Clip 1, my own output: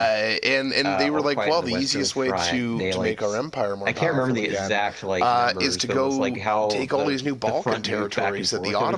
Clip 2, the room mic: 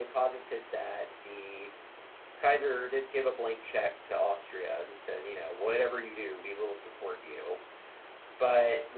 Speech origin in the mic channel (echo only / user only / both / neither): user only